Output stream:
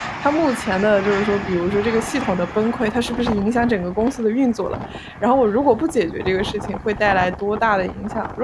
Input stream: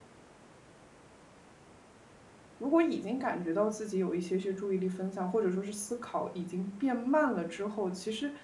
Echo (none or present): none